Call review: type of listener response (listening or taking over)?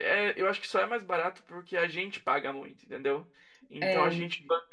listening